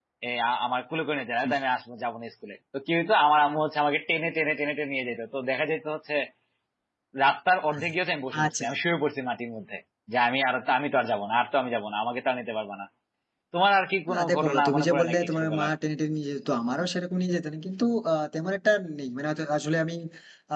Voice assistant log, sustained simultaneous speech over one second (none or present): present